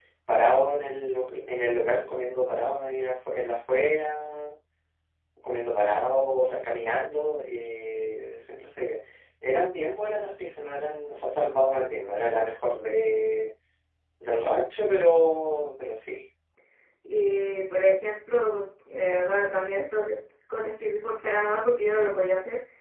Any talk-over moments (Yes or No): No